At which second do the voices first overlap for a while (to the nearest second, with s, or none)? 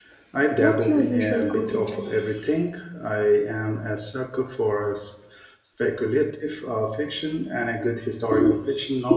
1 s